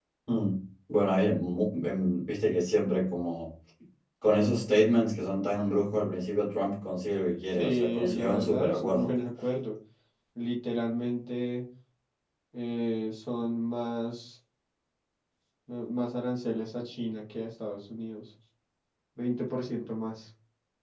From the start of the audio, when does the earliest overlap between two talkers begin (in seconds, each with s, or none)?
7.5 s